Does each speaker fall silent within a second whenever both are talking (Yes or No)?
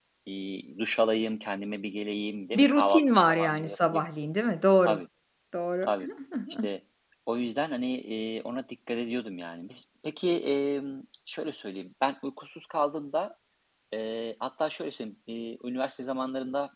No